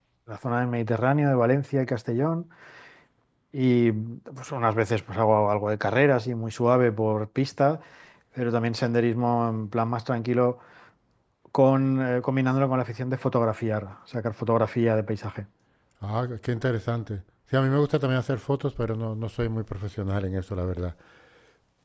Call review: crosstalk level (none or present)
none